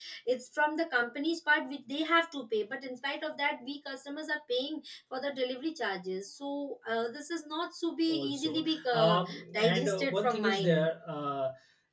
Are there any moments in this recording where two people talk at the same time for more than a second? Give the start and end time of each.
8.1-10.9

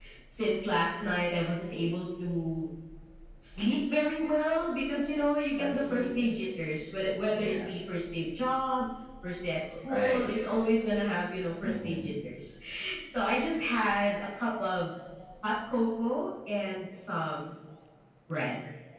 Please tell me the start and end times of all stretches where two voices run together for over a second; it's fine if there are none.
none

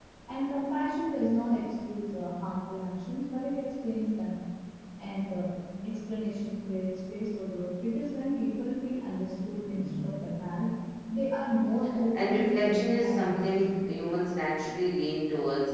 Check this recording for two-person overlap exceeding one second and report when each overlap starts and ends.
12.1-13.8

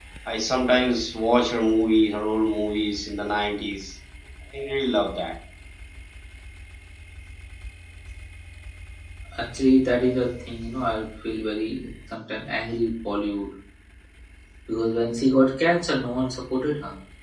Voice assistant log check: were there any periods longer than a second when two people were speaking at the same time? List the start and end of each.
none

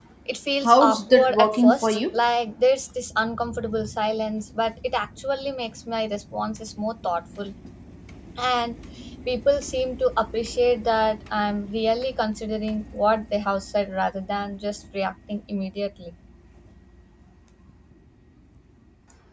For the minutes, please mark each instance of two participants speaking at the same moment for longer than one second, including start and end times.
0.6-2.0

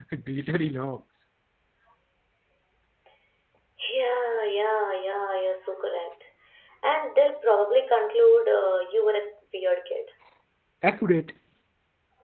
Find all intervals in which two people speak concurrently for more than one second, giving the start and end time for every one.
none

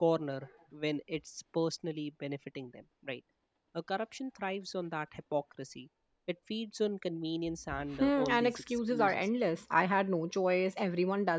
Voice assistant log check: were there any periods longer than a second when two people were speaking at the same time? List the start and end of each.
8.0-9.3

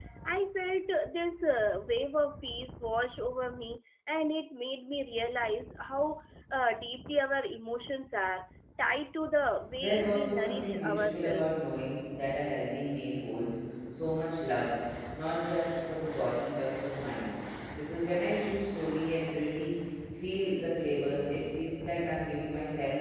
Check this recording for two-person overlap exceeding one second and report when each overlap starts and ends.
9.8-11.7

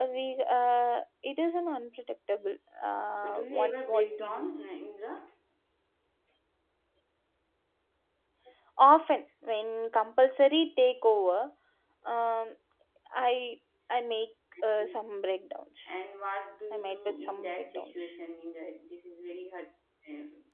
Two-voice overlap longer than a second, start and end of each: 3.2-4.5, 16.7-18.1

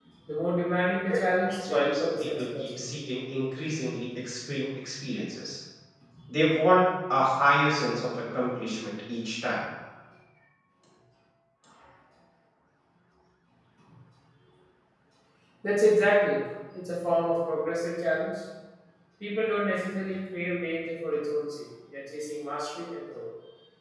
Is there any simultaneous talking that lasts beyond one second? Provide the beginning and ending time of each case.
1.1-3.0

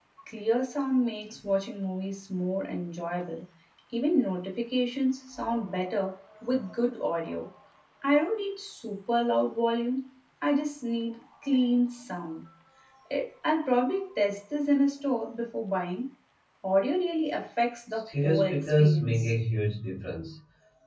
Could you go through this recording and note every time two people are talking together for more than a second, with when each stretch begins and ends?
18.1-19.3

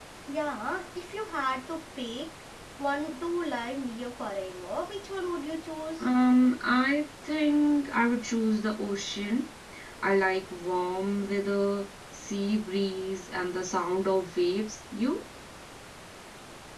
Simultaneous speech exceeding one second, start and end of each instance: none

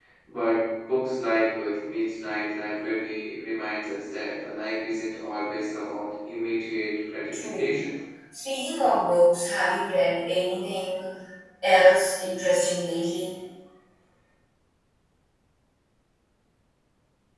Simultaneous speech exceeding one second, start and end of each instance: none

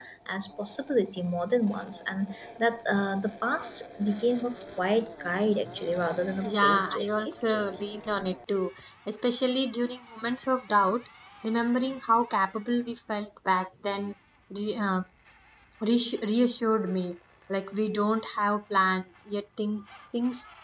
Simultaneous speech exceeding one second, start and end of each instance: 6.4-7.7

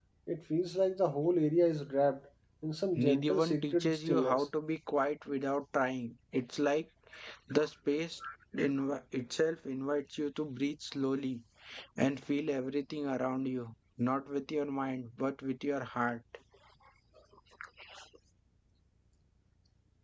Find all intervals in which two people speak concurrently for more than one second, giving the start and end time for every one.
3.0-4.5

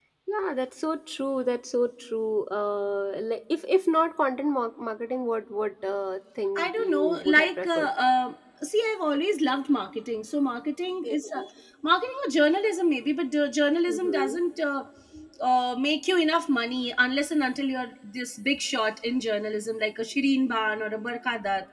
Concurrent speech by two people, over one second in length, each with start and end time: 6.5-7.9

